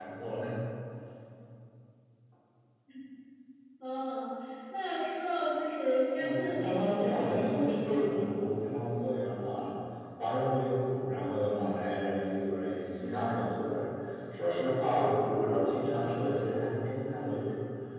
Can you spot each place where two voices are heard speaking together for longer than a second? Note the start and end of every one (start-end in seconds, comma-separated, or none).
6.2-8.3